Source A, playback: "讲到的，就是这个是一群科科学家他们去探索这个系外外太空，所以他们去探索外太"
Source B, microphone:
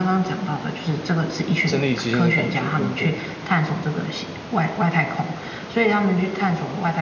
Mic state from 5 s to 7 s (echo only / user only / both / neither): echo only